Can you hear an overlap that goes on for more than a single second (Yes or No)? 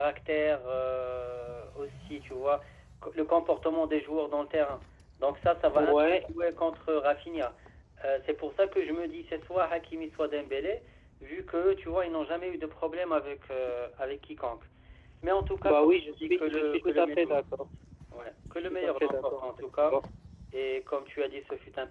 Yes